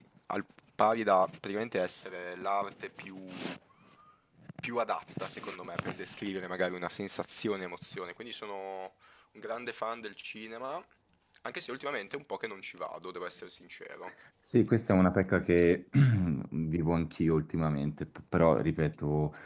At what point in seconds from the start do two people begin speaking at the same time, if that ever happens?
none

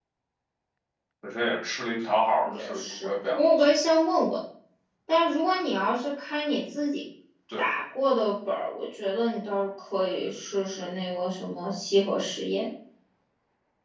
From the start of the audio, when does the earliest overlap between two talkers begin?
2.4 s

